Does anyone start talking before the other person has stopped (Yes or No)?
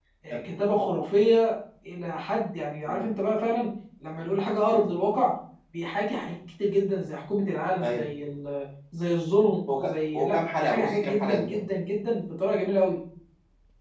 Yes